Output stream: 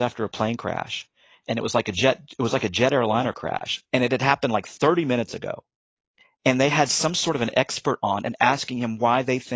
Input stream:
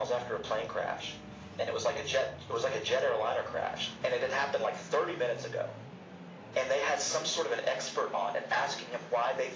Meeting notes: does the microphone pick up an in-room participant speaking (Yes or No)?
No